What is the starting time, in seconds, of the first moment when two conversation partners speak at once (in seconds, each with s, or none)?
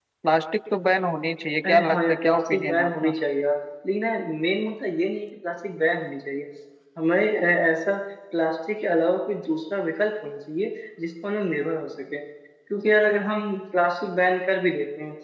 1.6 s